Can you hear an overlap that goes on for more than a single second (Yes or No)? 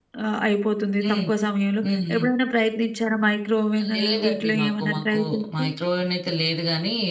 Yes